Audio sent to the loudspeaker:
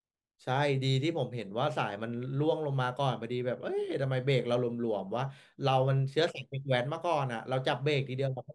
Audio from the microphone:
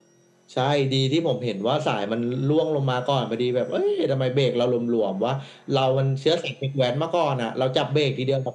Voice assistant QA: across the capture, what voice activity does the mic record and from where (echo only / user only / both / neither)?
echo only